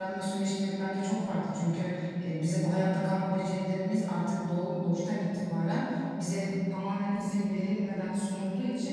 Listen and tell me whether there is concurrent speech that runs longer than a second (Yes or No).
No